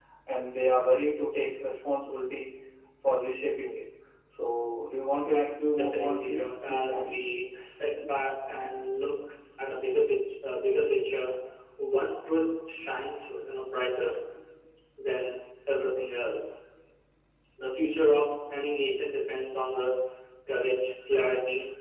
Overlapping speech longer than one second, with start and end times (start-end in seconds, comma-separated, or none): 5.7-7.0